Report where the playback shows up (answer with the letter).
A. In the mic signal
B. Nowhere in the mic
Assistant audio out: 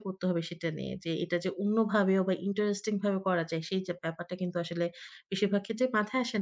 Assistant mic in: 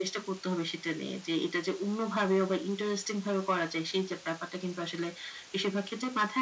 A